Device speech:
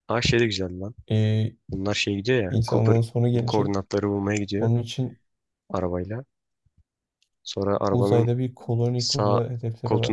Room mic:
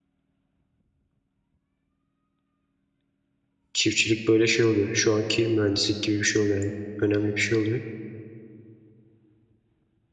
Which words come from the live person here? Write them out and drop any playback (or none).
Çiftçilik böyle şey oluyor. Şu anki mühendislik gibi bir şey oluyor yani. Önemli bir şey oluyor.